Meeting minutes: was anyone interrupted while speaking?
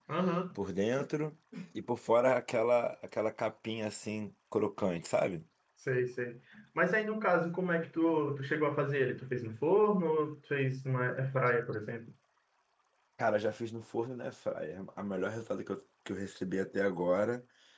No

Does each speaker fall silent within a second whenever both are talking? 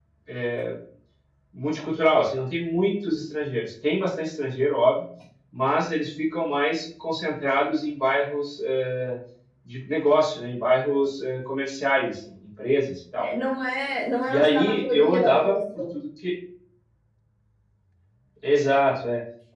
No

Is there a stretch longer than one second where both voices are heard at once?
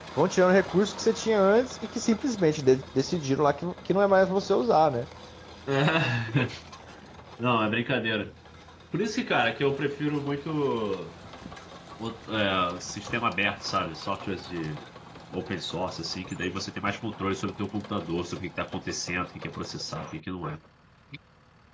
No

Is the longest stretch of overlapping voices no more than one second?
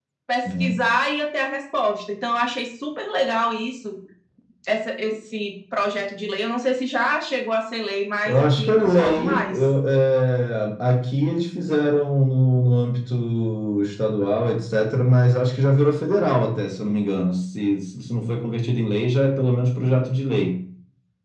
No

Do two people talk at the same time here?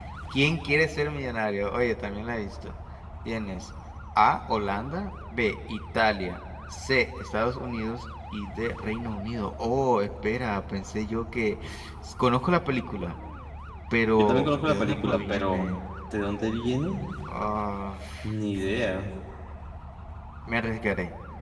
Yes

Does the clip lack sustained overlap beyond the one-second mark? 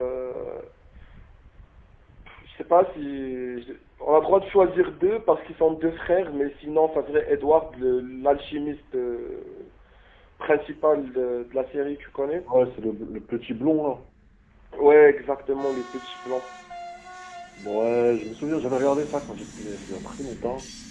Yes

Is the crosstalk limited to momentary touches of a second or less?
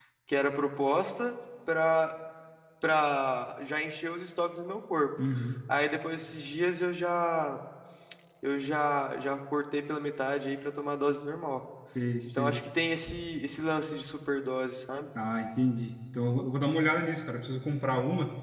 Yes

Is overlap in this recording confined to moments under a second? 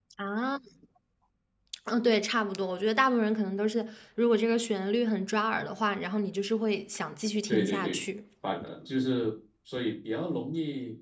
Yes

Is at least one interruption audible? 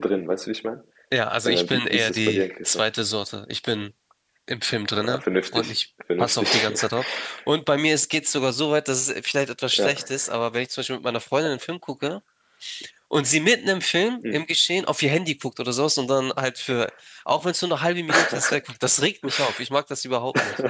Yes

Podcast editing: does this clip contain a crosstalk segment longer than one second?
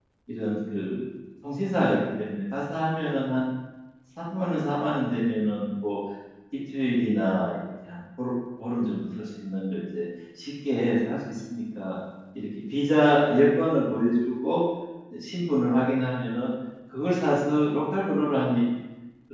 No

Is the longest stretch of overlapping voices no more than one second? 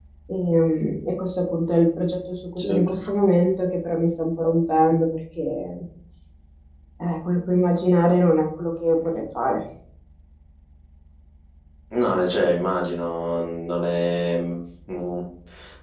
Yes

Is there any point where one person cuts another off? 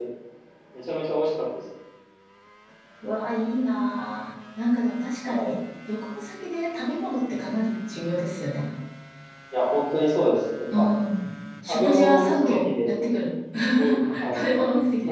Yes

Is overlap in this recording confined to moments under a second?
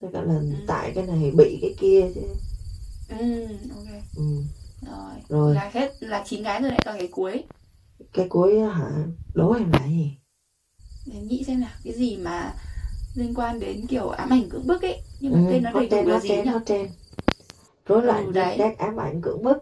No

